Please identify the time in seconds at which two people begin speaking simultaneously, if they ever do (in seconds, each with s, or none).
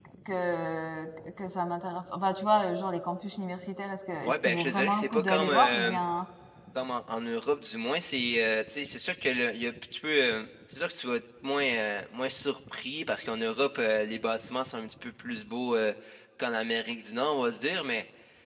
4.2 s